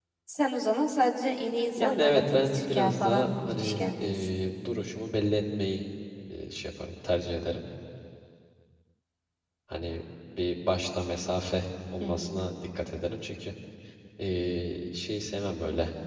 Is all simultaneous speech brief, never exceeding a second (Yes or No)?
No